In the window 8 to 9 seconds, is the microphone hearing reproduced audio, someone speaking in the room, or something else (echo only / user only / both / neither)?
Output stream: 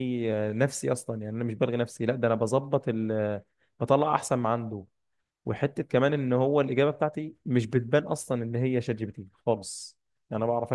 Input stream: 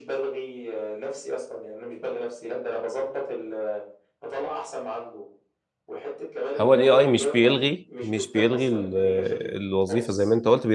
both